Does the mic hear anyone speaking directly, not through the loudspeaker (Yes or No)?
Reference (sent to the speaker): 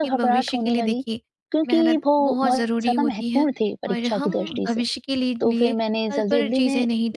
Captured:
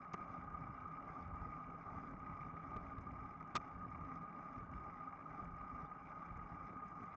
No